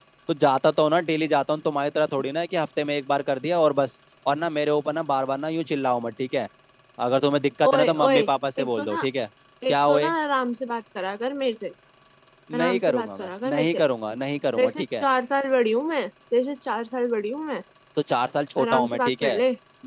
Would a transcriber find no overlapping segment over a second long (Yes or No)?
No